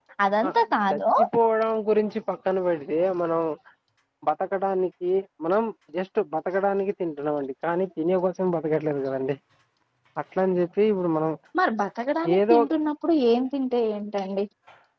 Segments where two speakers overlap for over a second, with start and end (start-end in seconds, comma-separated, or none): none